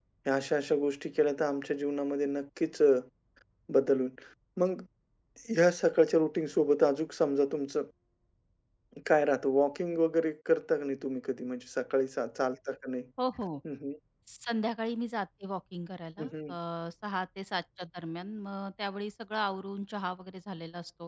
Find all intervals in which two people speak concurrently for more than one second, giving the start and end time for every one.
none

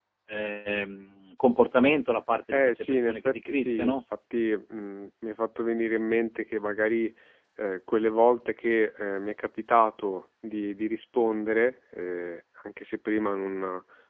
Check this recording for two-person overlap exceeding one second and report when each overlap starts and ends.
2.5-4.0

